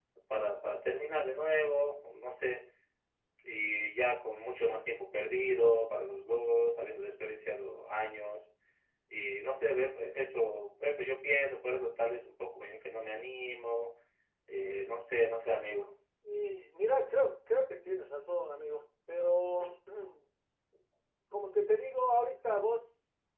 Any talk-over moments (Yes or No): No